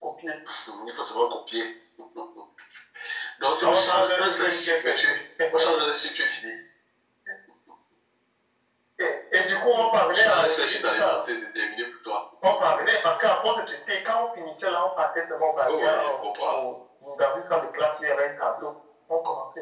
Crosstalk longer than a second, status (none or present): present